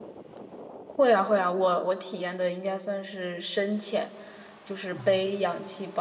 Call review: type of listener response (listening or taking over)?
listening